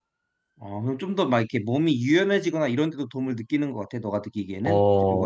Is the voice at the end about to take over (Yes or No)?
Yes